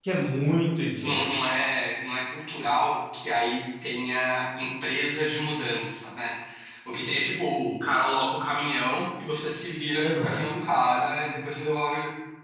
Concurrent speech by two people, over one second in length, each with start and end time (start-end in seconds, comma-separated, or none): none